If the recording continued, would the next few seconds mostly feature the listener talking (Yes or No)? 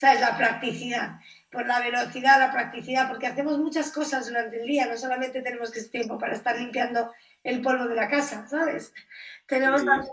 No